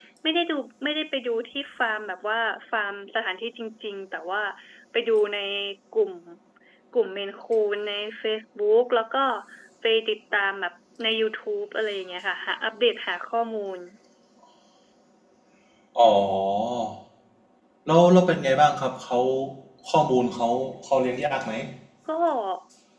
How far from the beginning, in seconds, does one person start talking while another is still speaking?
none

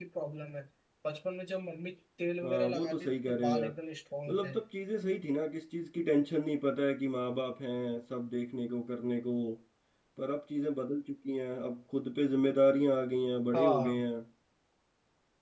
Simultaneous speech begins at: 2.4 s

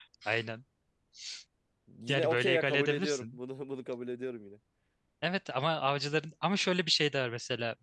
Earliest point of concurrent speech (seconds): 2.1 s

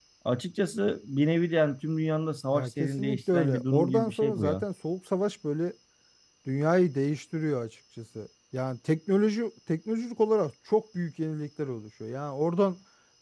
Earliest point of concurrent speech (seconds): 2.5 s

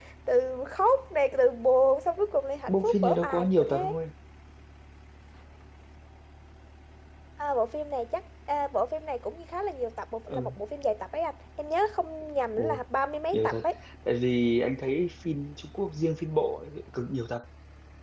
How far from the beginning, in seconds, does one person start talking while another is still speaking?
2.7 s

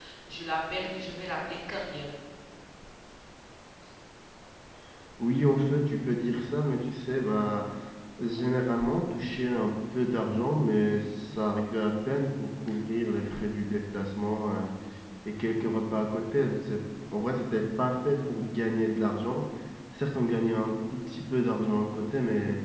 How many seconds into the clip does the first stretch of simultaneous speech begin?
none

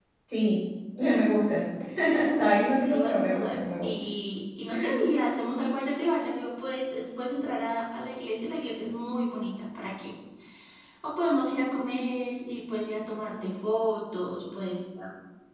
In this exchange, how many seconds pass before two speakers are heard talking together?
2.7 s

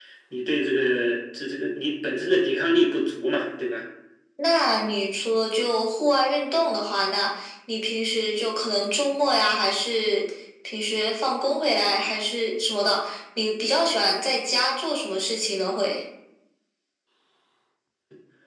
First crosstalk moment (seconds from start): none

